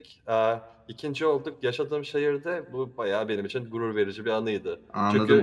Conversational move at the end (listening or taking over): taking over